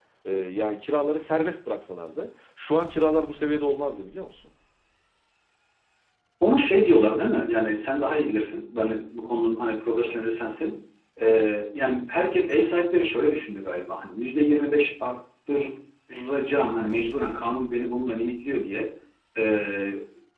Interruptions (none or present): none